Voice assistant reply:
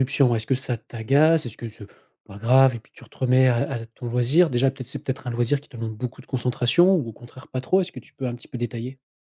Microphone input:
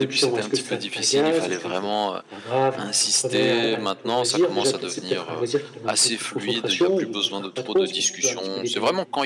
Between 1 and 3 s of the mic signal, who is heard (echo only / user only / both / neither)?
both